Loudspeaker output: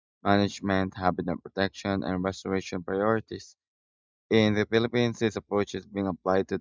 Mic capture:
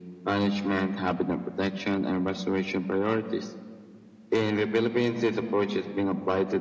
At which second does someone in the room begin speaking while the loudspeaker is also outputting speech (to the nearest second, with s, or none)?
none